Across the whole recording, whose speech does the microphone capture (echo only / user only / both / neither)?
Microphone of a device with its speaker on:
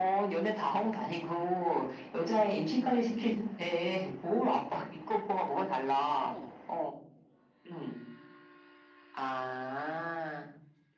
both